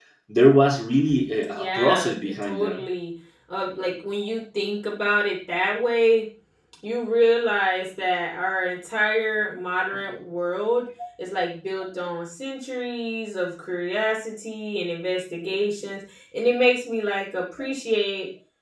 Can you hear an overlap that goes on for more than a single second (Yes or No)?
Yes